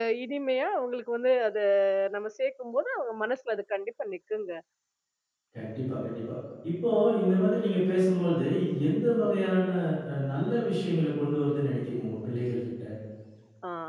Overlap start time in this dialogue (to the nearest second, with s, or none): none